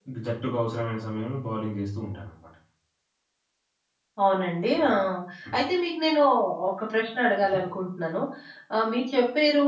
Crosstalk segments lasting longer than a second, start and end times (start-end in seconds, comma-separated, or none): none